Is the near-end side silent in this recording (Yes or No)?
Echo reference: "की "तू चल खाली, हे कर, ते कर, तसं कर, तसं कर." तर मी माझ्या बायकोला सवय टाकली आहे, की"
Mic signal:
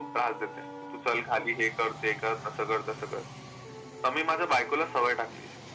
Yes